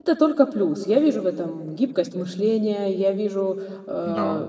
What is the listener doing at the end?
listening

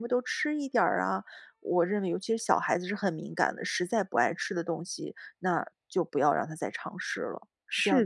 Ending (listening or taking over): taking over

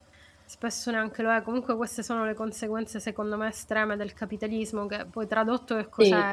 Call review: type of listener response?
listening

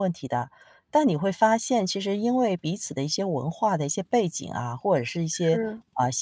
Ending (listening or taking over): listening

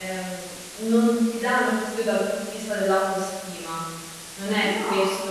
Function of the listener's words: listening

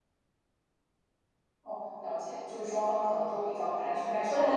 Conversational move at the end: taking over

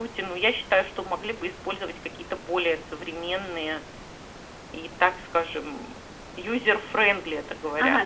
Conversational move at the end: taking over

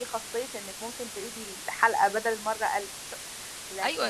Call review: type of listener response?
taking over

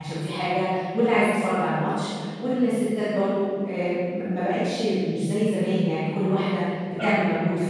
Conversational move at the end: listening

